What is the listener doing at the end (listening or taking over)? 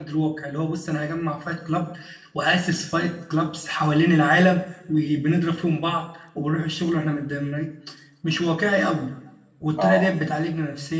listening